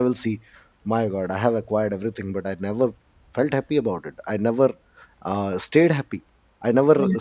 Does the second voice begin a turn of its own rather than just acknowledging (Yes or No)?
No